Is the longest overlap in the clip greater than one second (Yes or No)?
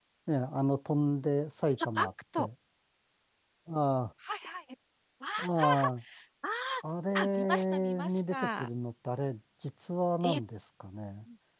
Yes